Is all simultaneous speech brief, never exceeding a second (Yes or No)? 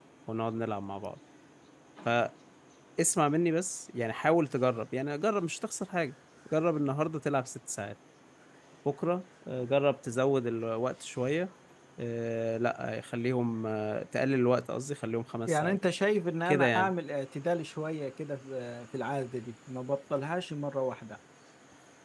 Yes